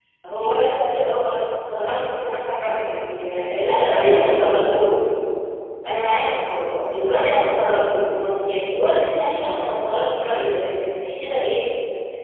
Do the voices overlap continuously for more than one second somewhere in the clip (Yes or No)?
Yes